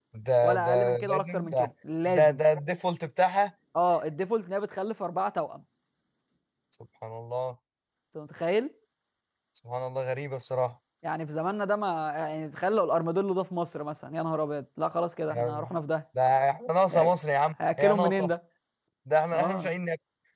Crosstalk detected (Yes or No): Yes